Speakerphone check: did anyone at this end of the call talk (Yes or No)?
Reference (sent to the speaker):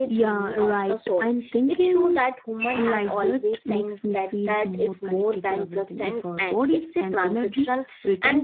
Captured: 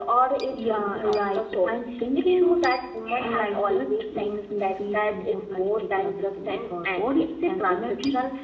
No